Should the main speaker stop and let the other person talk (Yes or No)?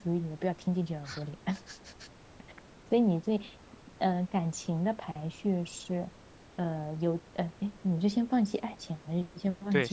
Yes